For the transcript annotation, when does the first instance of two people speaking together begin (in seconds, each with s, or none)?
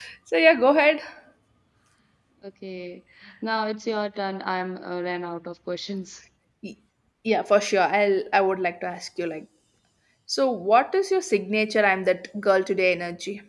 none